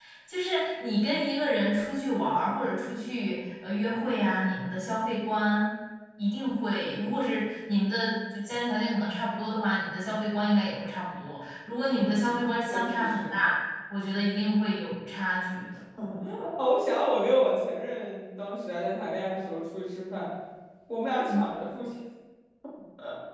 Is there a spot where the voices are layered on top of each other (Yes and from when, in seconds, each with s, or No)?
Yes, from 11.9 s